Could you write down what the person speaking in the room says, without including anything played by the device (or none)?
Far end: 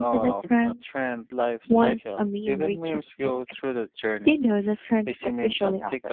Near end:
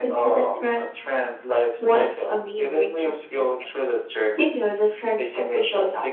none